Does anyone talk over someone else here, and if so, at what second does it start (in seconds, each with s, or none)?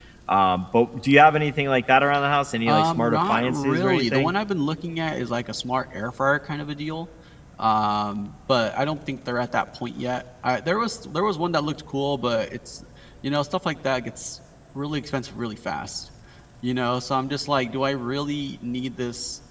2.7 s